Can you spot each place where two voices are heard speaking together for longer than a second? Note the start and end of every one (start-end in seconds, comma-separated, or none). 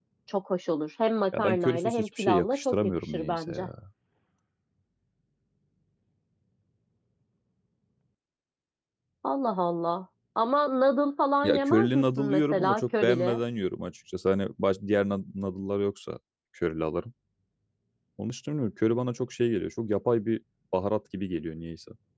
1.4-3.6, 11.4-13.4